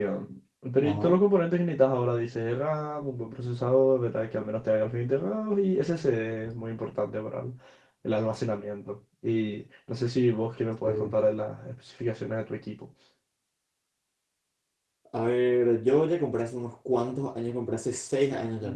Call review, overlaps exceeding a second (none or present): none